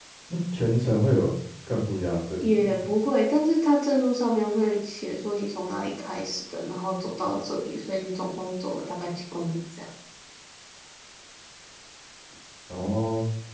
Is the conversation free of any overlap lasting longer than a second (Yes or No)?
Yes